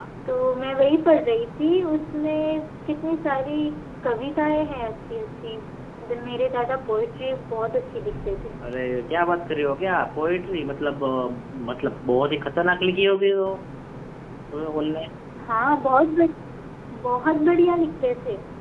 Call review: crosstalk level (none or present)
none